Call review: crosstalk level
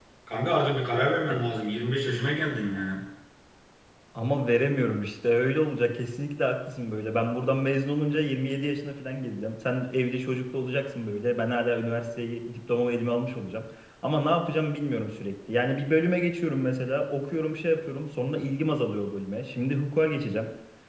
none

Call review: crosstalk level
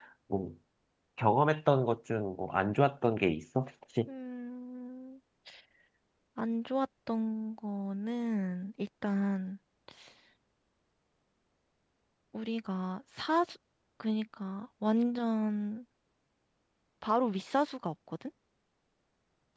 none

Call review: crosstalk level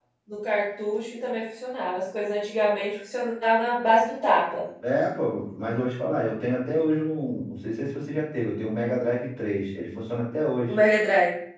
none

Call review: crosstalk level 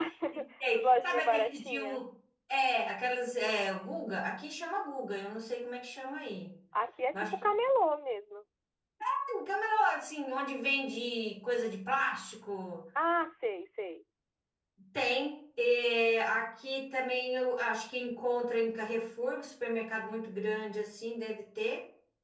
present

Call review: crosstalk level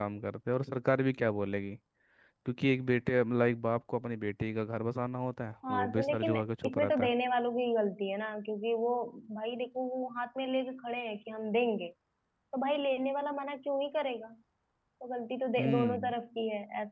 present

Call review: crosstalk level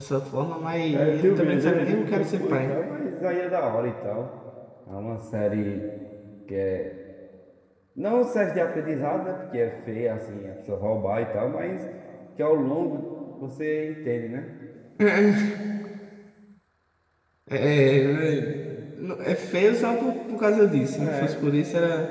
present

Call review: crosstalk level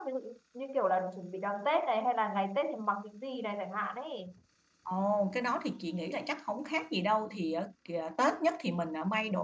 none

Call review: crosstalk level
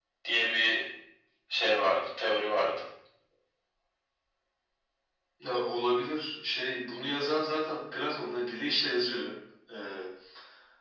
none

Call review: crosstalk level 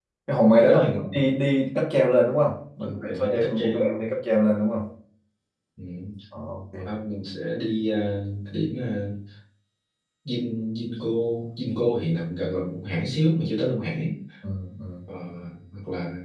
present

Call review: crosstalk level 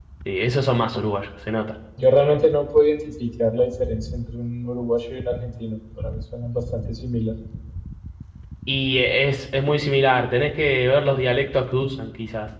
none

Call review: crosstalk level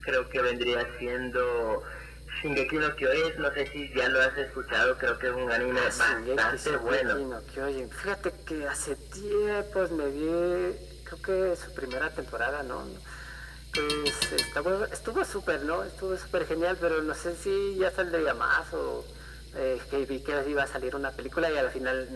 present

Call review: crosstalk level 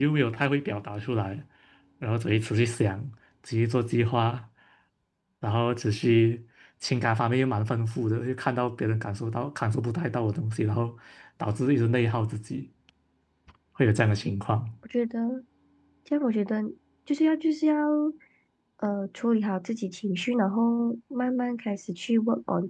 none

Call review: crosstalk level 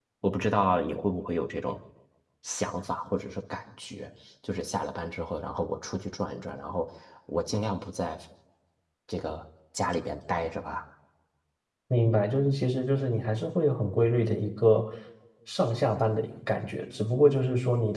none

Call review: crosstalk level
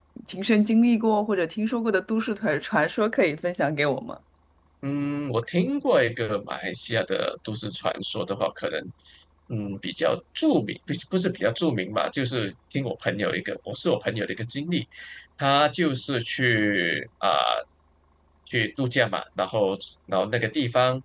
none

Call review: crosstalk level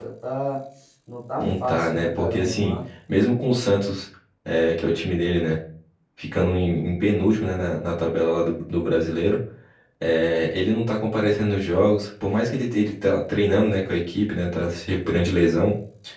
present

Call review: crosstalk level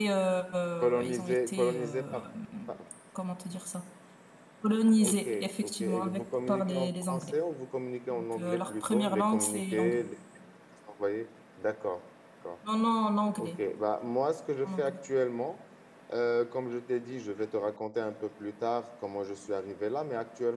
present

